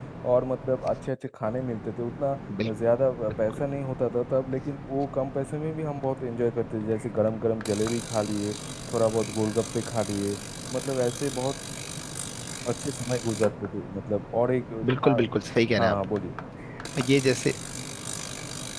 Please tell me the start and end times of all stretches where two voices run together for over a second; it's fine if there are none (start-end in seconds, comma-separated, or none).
none